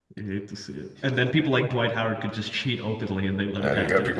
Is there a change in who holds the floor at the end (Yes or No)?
Yes